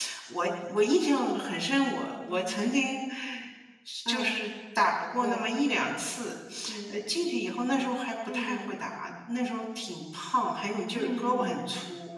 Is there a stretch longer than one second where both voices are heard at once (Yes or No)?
No